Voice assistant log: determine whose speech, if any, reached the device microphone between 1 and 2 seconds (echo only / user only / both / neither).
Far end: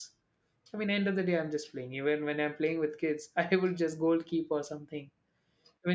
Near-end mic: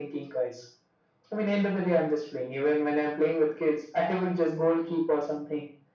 echo only